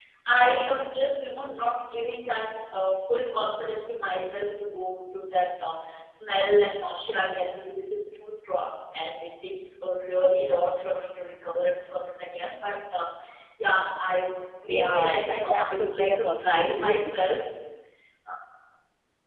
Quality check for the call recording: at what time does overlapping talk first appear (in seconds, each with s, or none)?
14.7 s